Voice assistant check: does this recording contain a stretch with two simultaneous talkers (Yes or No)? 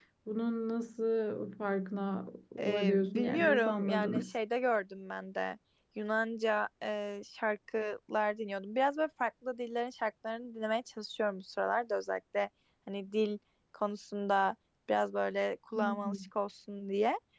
Yes